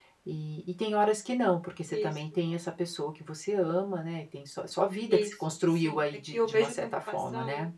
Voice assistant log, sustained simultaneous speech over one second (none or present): present